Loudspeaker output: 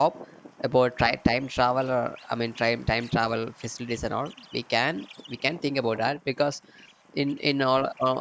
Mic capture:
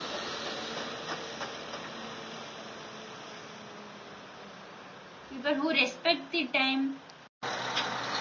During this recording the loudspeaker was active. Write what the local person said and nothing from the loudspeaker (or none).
people who respect the time